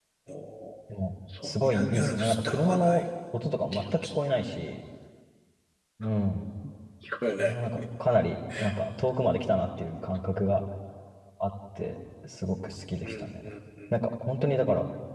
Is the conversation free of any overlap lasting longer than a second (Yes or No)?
No